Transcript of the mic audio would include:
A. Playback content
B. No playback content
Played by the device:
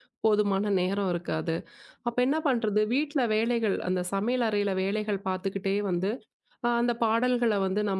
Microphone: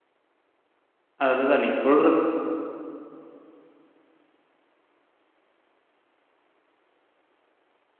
B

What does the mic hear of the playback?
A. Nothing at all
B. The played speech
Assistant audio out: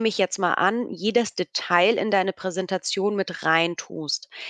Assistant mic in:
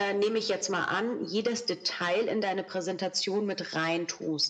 B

